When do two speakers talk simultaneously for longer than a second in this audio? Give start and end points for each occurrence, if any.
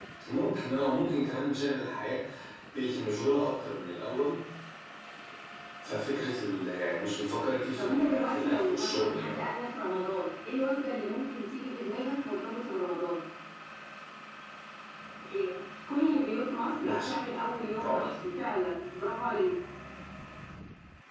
7.8-9.4

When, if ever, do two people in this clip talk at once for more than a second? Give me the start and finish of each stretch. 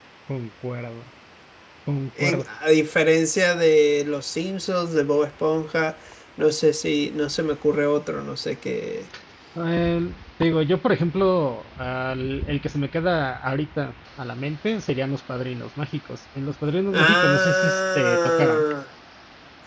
16.9-18.6

